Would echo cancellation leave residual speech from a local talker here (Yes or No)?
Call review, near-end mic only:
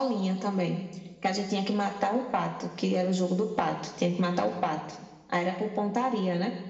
No